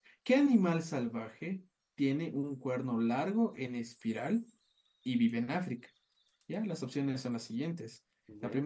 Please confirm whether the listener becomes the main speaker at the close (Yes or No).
No